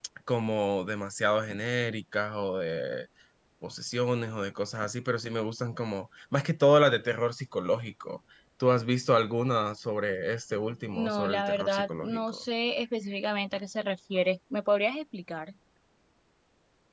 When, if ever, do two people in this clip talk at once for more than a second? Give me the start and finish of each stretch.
10.9-12.4

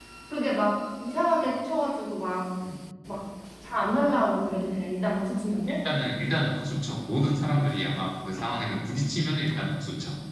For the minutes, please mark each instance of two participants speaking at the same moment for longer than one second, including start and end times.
none

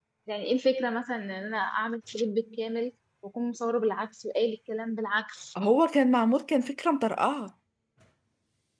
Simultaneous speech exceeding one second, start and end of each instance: none

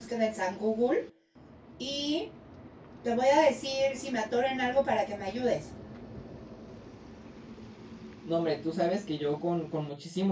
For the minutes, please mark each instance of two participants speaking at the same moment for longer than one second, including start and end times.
none

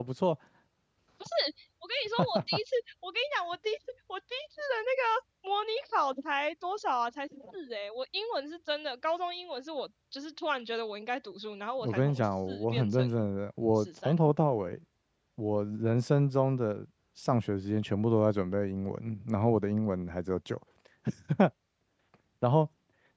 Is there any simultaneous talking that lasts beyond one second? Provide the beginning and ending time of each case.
11.8-13.1

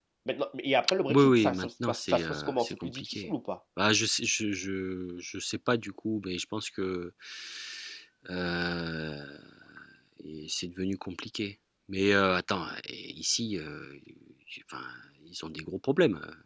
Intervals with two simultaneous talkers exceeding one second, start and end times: 1.1-3.3

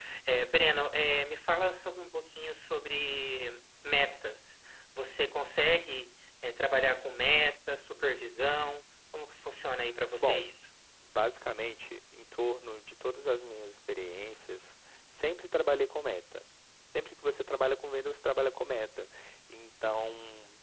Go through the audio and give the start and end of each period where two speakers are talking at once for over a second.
none

